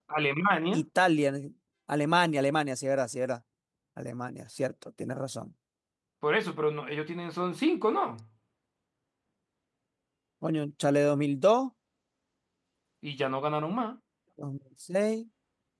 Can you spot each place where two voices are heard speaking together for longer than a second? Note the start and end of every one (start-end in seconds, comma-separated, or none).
none